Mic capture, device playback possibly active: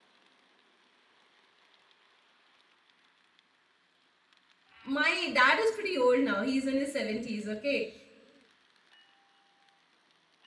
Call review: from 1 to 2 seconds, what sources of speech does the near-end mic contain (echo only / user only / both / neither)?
neither